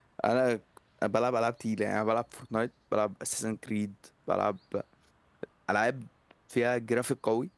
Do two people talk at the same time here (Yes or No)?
No